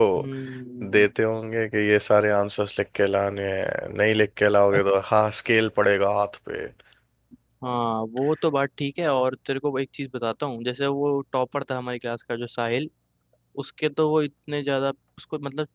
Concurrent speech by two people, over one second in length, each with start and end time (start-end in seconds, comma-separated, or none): none